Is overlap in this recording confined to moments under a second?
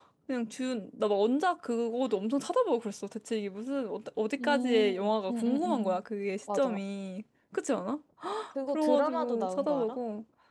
No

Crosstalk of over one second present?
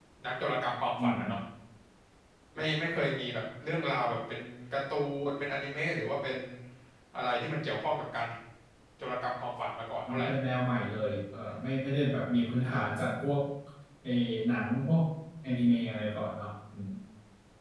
No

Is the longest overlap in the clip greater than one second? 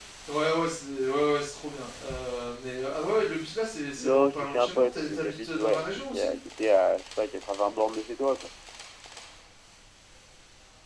Yes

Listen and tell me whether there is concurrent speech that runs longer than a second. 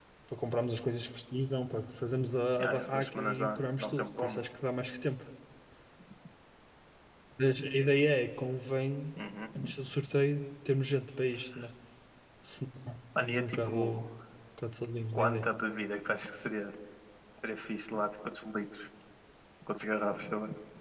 Yes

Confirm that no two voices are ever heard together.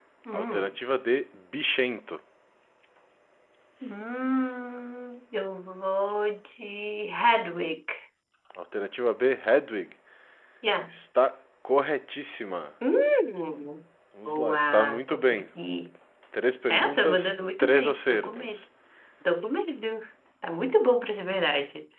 No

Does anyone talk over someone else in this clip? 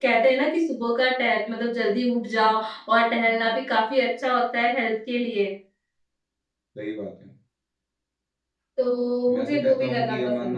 Yes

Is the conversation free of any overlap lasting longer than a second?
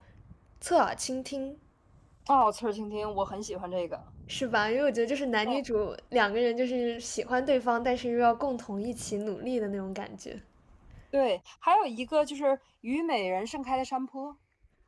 Yes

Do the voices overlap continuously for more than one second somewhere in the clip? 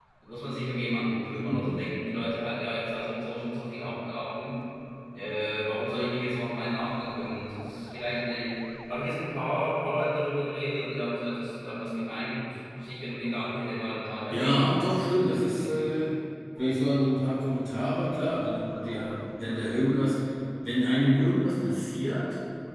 Yes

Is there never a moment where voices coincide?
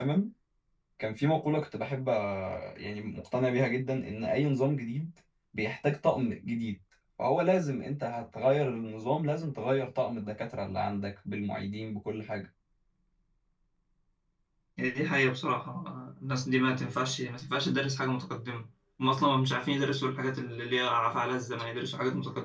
Yes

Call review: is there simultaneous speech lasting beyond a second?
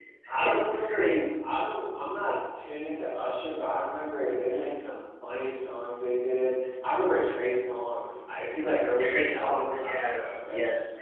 Yes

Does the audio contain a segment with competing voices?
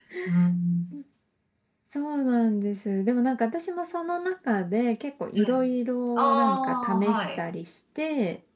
Yes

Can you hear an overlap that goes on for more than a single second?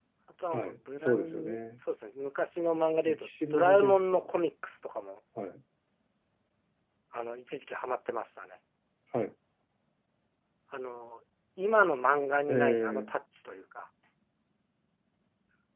Yes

